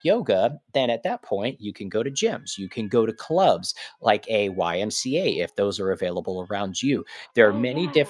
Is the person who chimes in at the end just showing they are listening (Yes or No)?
Yes